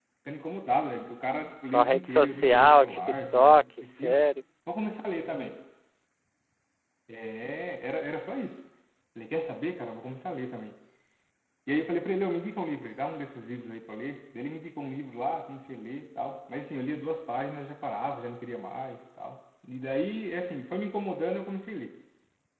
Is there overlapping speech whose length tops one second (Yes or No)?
Yes